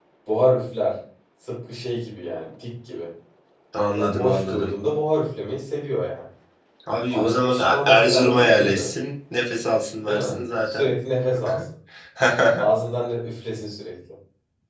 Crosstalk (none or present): present